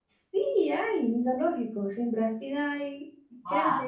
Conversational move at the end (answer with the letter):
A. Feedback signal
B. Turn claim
B